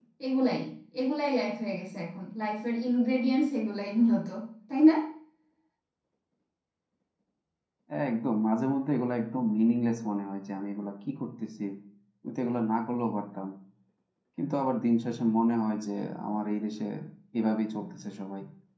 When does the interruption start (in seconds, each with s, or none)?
none